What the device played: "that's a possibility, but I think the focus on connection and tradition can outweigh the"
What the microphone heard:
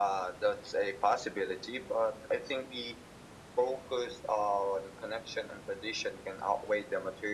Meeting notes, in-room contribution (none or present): none